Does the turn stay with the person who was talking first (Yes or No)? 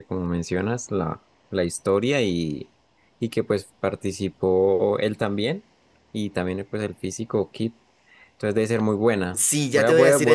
No